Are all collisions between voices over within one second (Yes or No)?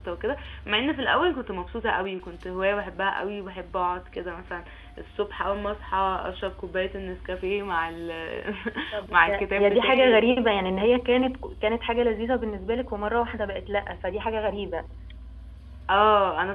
No